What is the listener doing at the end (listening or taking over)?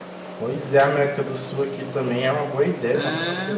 taking over